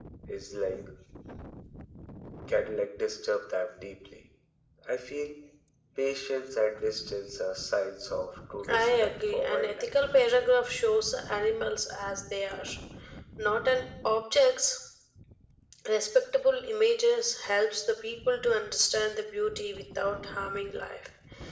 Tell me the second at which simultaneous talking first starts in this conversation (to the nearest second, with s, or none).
9 s